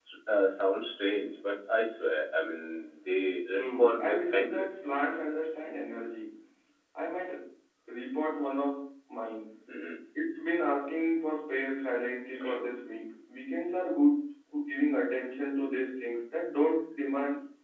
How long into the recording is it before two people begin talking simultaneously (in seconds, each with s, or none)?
3.5 s